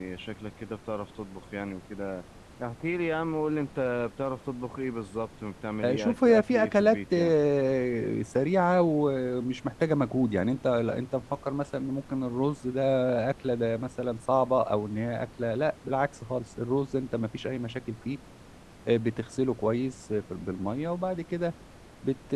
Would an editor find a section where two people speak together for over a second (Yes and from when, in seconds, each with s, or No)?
Yes, from 5.8 s